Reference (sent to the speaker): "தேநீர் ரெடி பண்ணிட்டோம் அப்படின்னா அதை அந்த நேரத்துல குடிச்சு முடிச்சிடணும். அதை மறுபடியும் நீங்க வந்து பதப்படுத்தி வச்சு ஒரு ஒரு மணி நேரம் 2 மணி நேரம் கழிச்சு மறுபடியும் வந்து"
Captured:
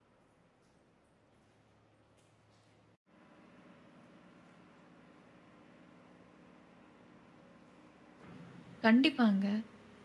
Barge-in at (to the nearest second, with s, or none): 9 s